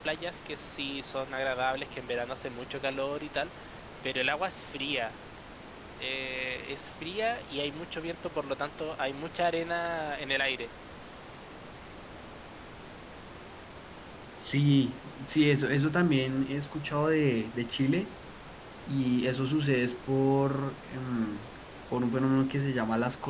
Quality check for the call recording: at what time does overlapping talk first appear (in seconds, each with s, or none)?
none